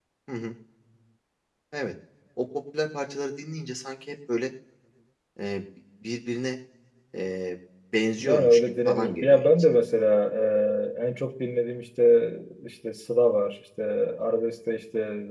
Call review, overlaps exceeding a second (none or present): present